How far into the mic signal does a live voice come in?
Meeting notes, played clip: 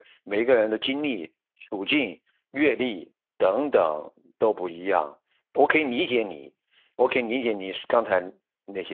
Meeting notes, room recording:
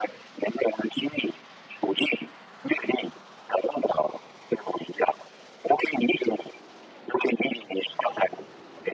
none

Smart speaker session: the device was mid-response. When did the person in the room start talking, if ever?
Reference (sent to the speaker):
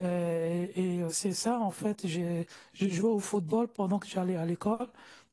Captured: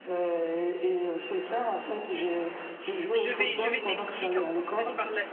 3 s

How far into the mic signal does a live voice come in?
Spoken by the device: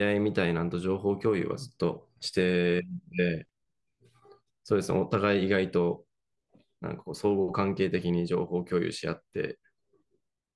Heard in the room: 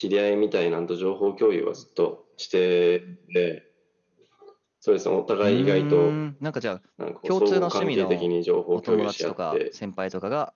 5 s

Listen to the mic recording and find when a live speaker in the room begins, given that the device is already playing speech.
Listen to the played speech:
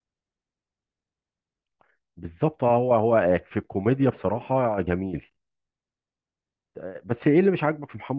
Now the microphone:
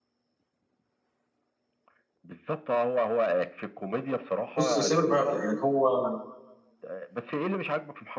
5 s

